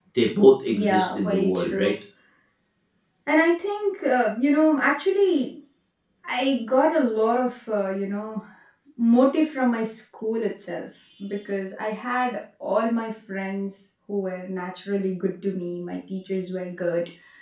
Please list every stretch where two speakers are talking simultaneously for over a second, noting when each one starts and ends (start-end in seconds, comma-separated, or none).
0.7-1.9